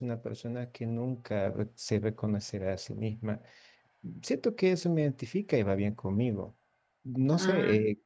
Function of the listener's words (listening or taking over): listening